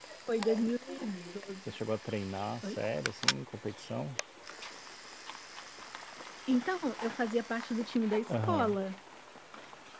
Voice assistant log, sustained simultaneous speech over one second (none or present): none